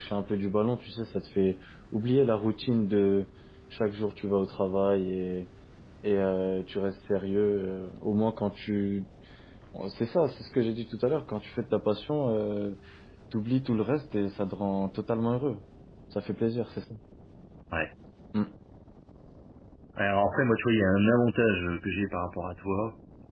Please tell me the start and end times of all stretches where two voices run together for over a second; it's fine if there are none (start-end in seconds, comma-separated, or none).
none